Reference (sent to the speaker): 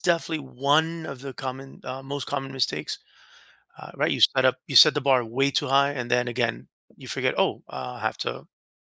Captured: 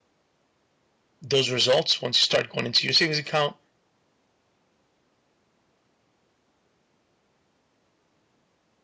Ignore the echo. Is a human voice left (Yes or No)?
Yes